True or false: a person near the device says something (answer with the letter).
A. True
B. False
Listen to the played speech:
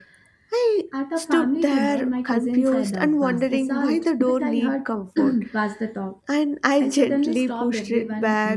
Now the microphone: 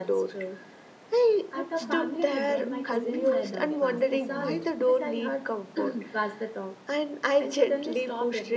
A